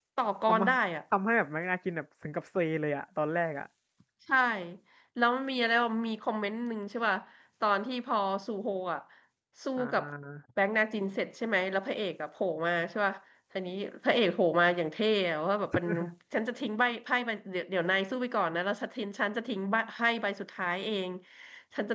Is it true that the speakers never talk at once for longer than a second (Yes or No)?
Yes